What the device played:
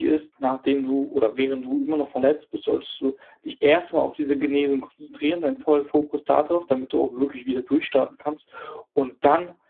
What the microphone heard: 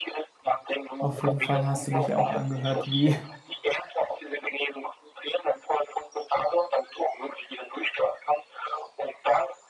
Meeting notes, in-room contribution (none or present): present